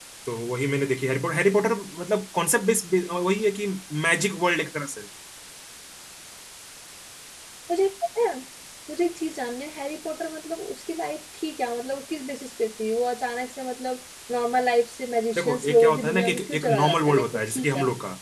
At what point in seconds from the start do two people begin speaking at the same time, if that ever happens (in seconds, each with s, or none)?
15.4 s